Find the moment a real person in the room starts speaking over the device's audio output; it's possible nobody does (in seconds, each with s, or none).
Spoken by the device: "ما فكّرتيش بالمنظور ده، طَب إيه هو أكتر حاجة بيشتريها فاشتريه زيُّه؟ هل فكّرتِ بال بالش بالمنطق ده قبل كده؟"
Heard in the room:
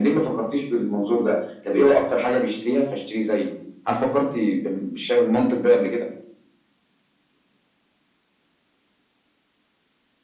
none